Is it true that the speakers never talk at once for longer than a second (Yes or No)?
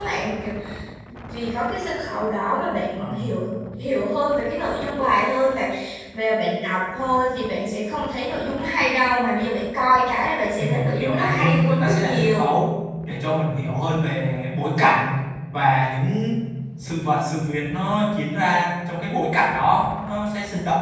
No